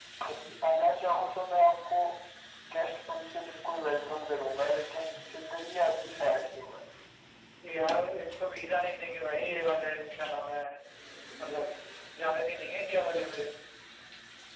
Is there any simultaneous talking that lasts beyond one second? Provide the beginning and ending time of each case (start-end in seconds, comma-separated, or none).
none